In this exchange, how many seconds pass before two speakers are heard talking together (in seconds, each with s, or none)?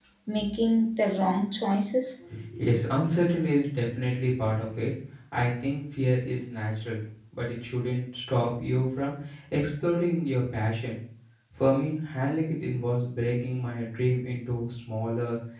none